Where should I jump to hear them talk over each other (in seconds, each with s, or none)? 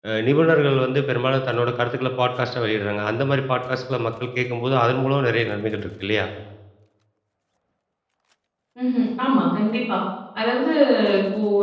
none